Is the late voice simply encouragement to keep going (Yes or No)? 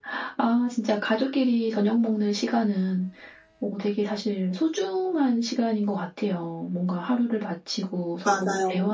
Yes